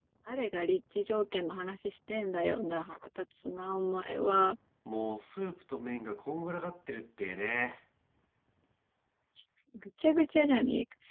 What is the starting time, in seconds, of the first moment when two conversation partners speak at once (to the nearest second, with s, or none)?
none